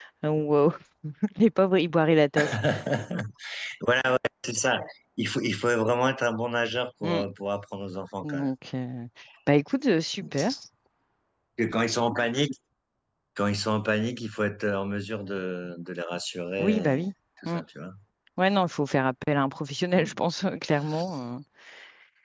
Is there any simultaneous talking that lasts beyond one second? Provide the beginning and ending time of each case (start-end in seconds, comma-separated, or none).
none